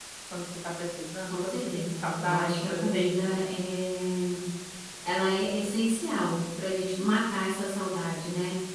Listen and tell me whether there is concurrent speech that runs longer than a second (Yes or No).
Yes